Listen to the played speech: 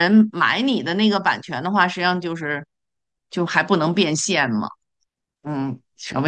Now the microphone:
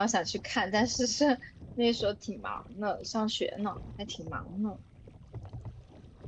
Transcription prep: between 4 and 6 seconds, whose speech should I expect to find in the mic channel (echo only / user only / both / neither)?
user only